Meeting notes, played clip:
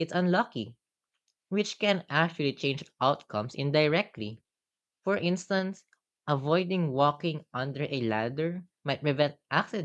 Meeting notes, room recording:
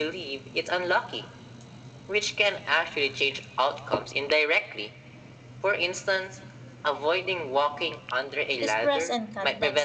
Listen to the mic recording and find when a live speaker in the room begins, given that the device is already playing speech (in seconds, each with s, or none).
8.6 s